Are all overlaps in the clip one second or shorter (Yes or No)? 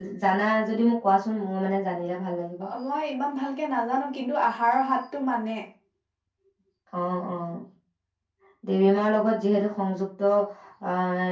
Yes